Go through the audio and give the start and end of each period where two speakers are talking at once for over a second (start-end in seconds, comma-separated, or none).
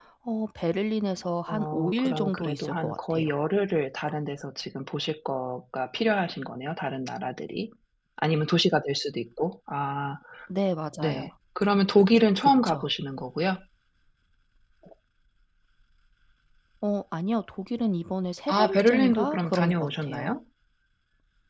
1.5-3.2, 18.5-20.3